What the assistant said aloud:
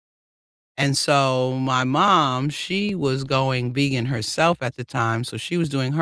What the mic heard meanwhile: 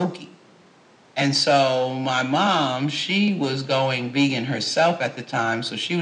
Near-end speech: none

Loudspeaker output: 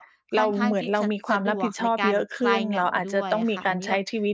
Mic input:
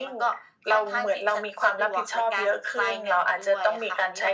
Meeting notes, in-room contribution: none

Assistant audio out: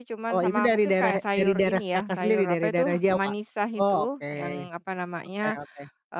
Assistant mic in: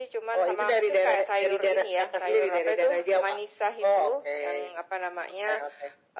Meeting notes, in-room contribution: none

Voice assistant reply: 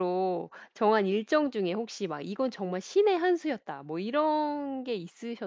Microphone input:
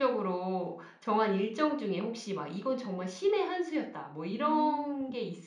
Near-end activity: present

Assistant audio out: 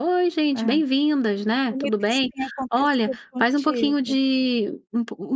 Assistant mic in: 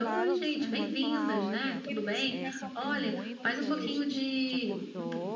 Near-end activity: present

